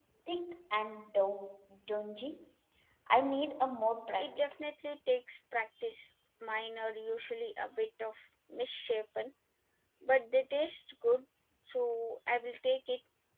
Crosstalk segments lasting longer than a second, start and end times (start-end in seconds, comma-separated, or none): none